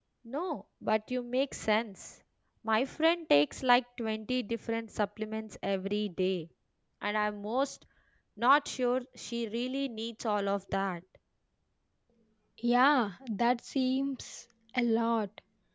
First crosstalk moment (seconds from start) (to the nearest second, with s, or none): none